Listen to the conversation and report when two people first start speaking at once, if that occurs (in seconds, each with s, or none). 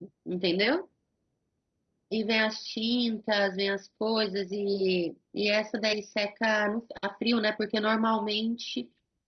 none